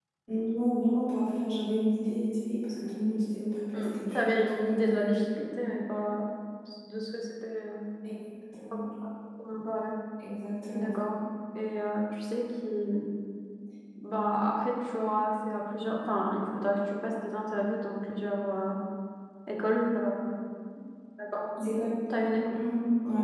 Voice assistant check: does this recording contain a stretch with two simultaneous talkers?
Yes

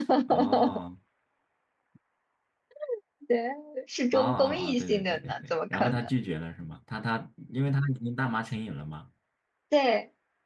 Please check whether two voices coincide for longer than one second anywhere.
Yes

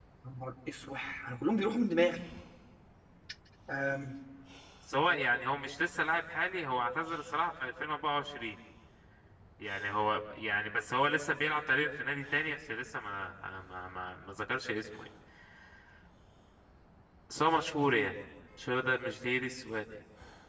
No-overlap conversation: Yes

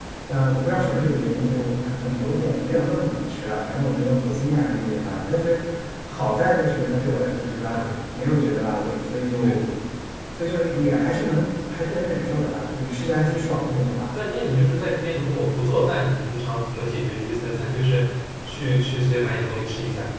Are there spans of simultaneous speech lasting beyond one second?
No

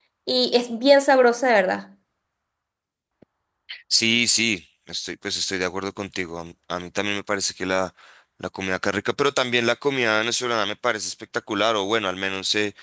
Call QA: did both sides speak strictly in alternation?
Yes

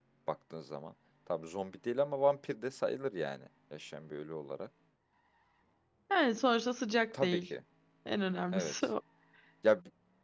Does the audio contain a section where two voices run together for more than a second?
No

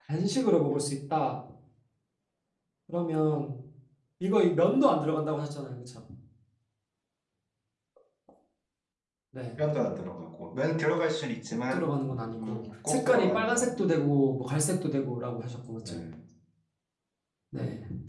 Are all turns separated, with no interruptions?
No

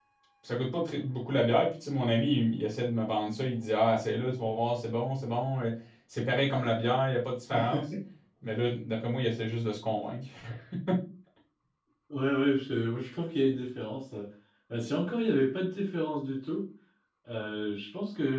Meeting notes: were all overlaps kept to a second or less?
Yes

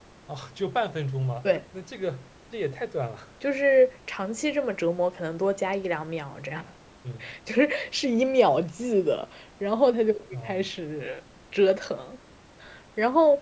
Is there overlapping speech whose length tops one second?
No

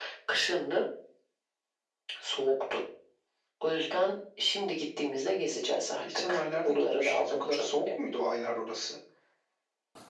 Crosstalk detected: Yes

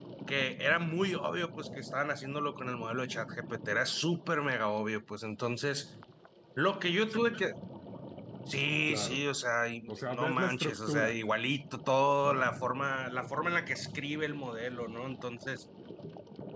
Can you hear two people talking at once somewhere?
Yes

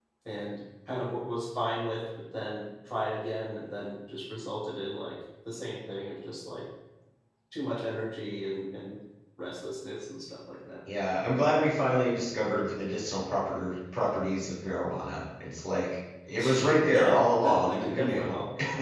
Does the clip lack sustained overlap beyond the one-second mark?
No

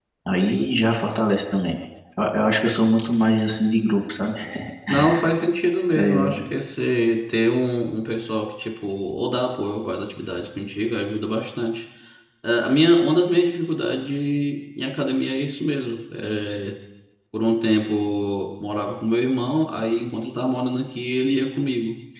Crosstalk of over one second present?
No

